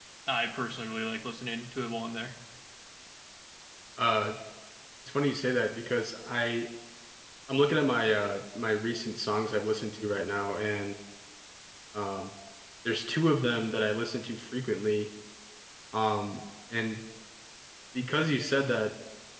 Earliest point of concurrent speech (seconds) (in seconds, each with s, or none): none